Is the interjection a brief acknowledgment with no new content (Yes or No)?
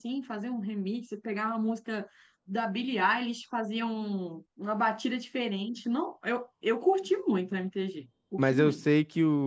No